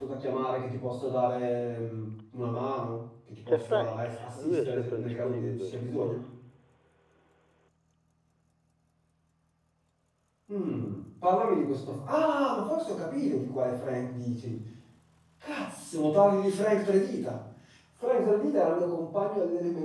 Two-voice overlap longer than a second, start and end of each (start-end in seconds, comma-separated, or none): 3.5-6.2